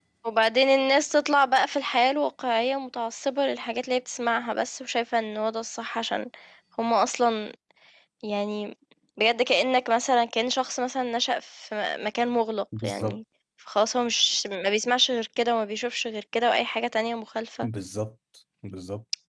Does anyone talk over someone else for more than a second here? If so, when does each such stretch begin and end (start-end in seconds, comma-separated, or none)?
none